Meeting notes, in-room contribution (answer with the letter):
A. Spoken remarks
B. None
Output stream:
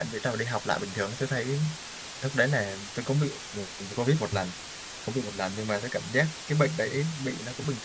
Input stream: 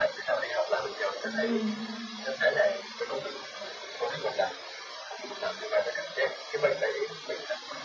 A